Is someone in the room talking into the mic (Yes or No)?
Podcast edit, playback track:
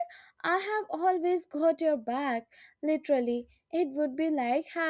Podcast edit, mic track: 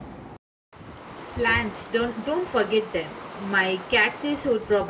Yes